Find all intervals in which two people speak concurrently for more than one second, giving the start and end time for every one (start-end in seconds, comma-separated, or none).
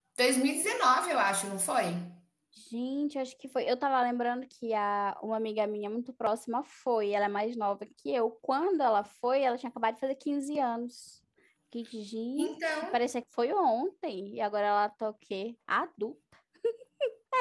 none